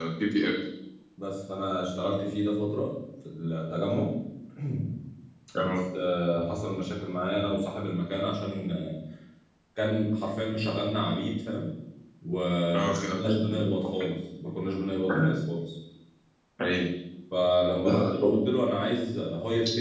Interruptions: present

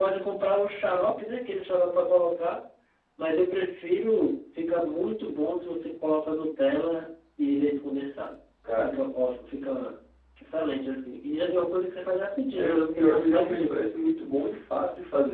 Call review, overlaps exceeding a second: present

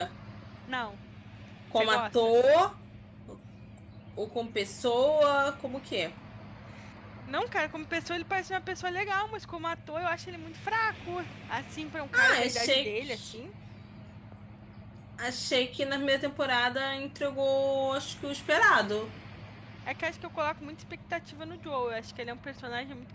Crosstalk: present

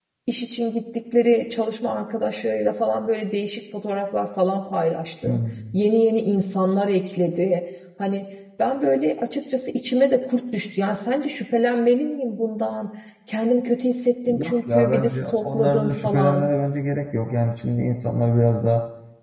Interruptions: present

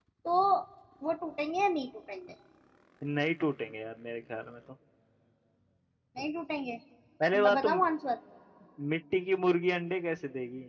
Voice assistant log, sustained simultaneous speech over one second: none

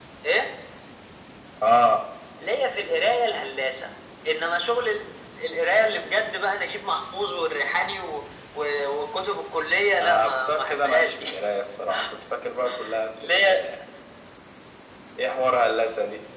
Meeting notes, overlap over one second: present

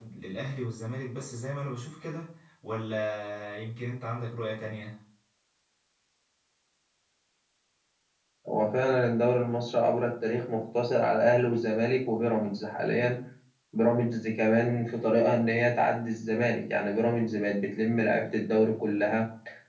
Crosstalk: none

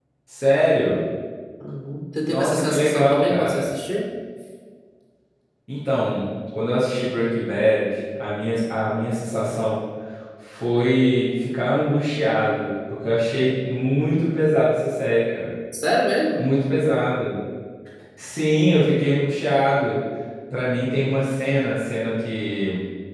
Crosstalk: present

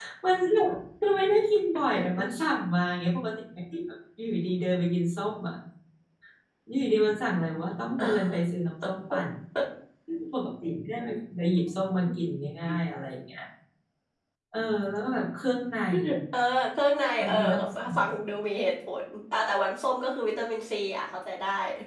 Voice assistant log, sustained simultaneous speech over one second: none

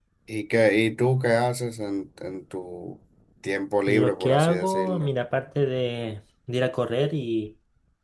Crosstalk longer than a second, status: present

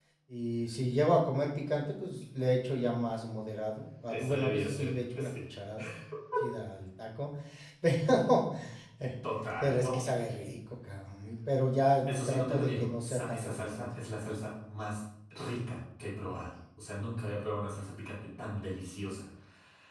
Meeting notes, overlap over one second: present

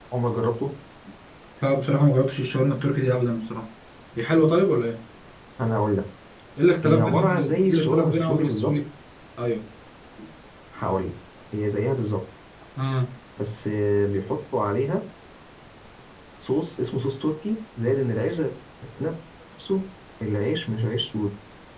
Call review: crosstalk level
present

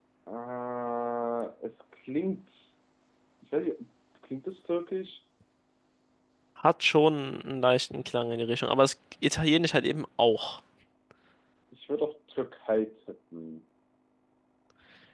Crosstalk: none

